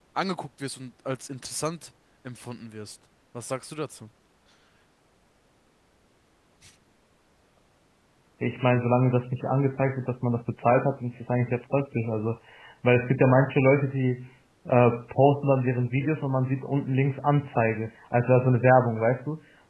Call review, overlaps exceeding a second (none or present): none